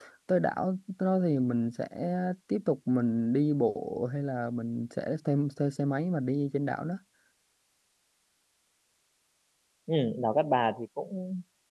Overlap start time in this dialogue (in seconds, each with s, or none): none